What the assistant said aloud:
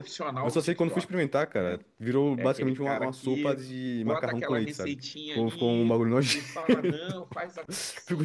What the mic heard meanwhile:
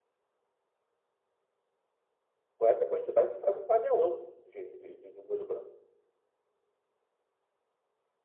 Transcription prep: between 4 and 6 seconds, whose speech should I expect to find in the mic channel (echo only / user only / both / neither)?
user only